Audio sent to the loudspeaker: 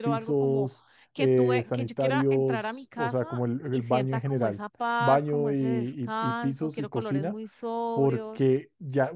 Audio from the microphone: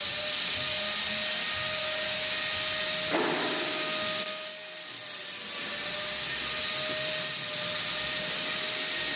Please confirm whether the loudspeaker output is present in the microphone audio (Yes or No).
No